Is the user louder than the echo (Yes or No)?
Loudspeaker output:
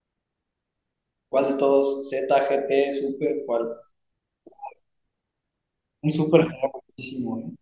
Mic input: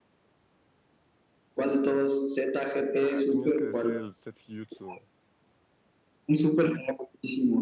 No